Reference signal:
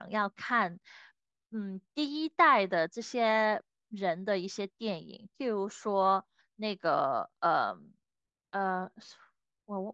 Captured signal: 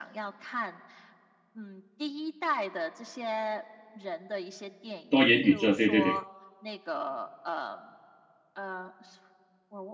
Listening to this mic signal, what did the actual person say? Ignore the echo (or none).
多元宇宙，对对对